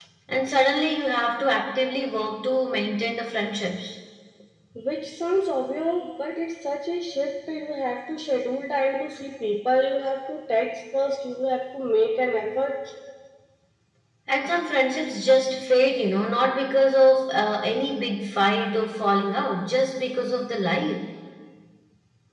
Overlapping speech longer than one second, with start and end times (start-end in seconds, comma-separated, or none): none